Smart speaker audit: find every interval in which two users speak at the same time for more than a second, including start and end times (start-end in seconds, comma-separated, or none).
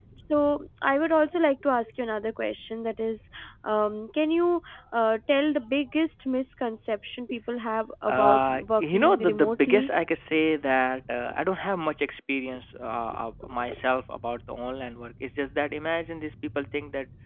8.1-9.8